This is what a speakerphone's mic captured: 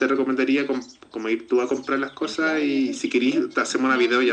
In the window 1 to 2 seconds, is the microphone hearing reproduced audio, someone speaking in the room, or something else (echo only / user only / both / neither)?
echo only